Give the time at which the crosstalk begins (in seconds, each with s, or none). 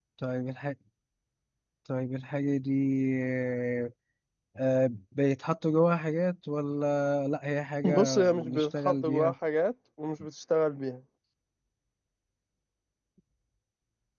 7.8 s